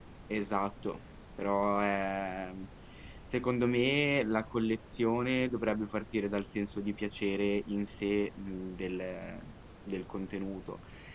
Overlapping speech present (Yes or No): No